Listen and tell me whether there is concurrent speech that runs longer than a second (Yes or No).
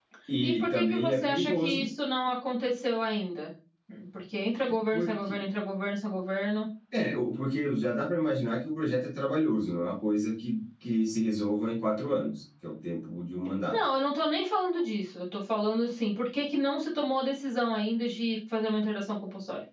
Yes